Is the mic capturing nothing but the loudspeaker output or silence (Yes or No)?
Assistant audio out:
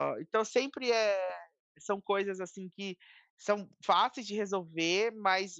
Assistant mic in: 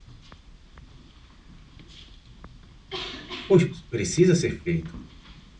No